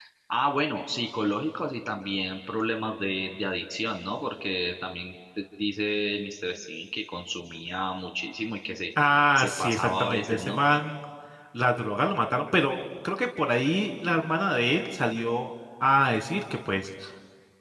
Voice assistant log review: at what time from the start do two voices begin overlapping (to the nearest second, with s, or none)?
9 s